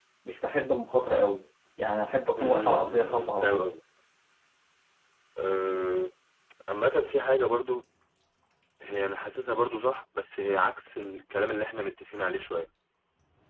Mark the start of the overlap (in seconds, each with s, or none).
2.4 s